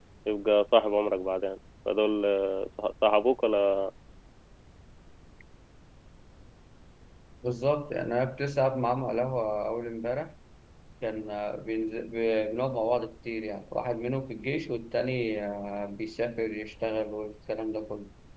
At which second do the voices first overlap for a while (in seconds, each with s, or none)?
none